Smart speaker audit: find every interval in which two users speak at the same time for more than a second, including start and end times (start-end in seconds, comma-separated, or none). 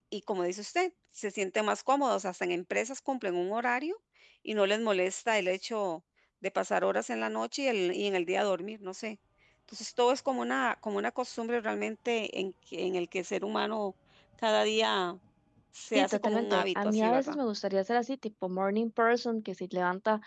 15.9-17.4